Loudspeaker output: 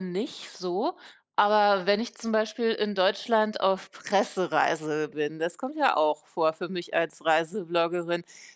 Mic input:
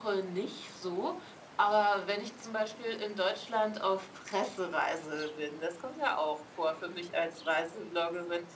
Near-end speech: none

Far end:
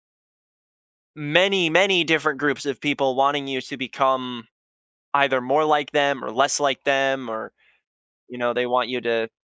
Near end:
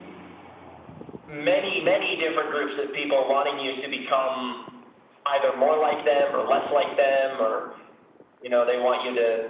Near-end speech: none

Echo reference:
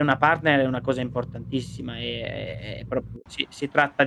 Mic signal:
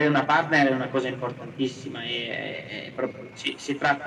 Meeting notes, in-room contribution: none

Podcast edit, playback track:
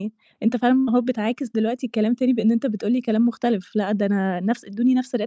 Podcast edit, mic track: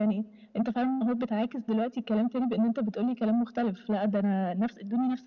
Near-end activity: none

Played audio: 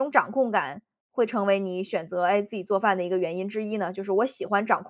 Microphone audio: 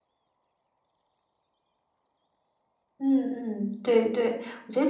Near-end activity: present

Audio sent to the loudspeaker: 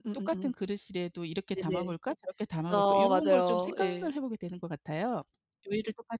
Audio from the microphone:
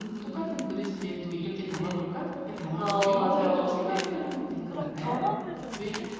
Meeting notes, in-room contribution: present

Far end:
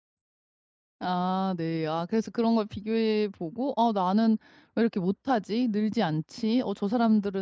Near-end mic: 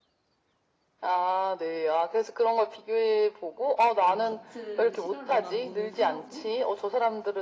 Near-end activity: present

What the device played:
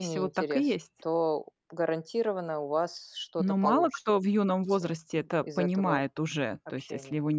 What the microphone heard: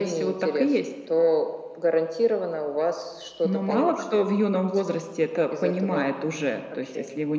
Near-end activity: none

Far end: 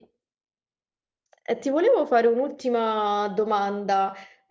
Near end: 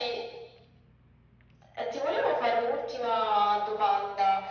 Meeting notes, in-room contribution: none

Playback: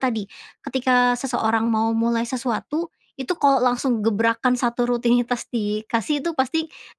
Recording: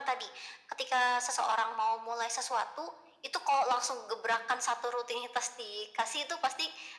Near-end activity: none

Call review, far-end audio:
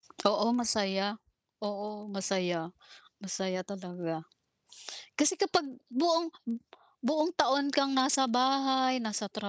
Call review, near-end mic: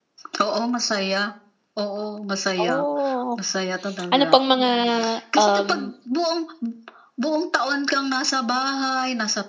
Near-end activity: present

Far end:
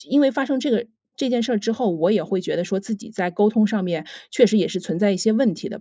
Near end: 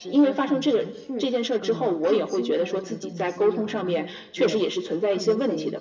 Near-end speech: present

